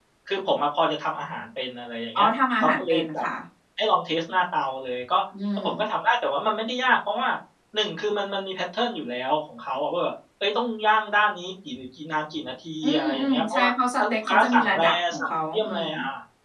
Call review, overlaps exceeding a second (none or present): present